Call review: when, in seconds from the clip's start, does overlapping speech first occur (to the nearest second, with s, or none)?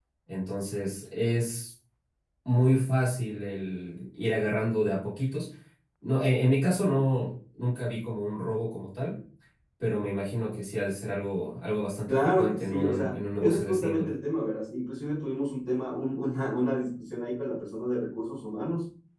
12 s